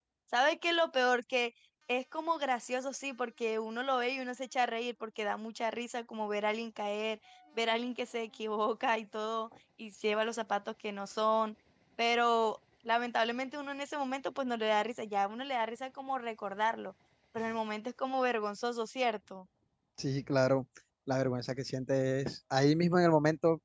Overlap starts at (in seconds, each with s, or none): none